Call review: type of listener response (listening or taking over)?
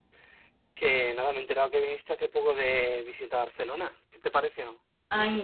taking over